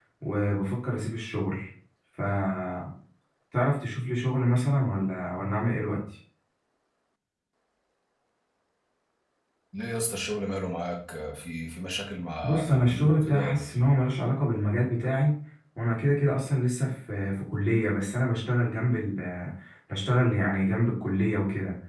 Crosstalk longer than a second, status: present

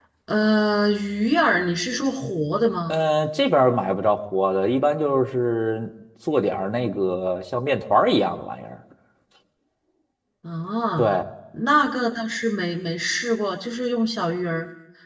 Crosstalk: none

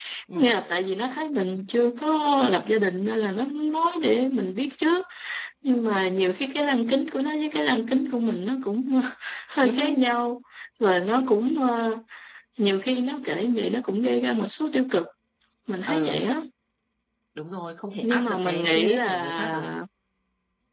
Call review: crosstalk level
present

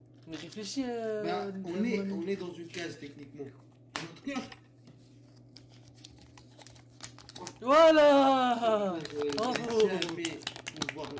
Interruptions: present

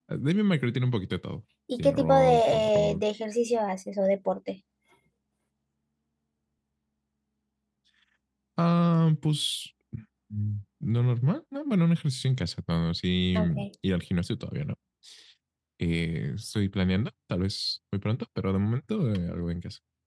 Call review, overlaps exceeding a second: present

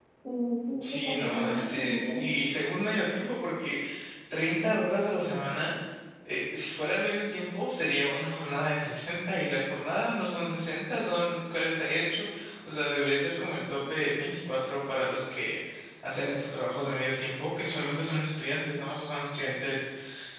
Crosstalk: present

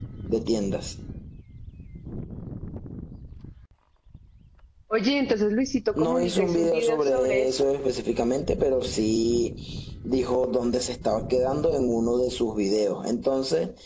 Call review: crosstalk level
present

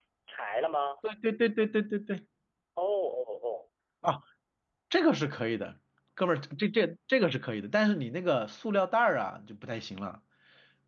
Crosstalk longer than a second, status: none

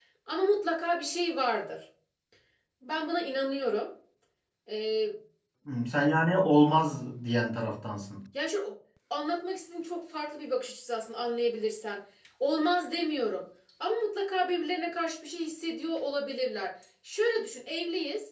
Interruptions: none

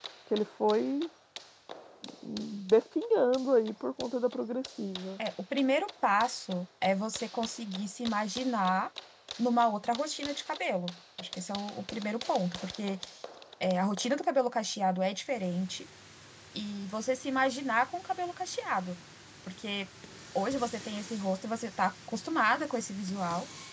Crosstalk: none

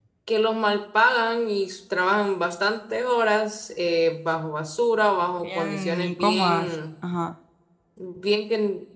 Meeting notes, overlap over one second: present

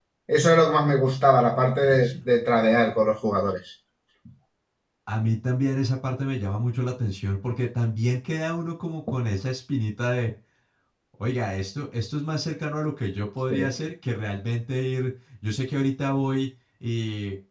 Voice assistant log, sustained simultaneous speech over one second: none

